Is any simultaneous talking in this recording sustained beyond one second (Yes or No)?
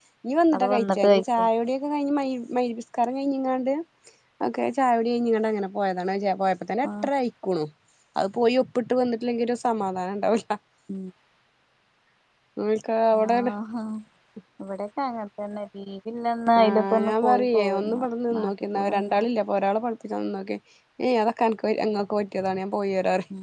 Yes